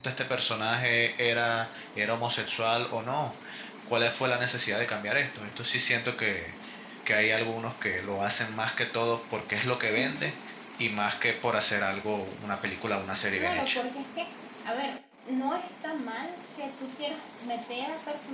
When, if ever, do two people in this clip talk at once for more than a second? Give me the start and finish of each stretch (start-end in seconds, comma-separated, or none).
none